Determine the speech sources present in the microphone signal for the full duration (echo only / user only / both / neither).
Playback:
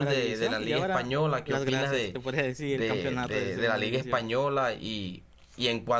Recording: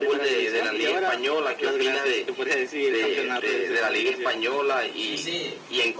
both